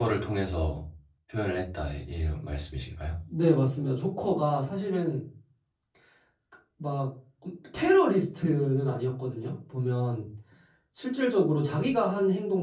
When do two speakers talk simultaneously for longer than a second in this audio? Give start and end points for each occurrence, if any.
none

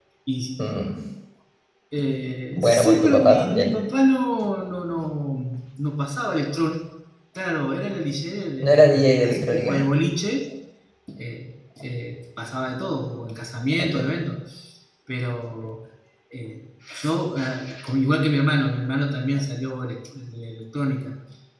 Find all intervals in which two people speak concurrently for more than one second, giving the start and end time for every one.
2.5-3.7, 8.6-9.8

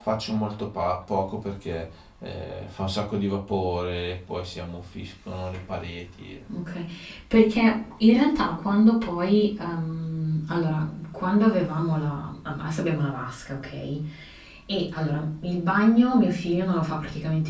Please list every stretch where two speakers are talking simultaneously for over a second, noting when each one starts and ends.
none

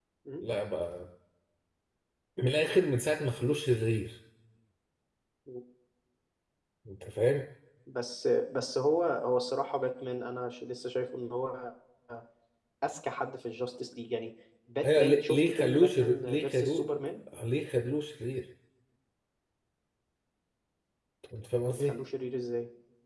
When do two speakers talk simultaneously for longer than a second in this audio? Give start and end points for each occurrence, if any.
14.8-16.9

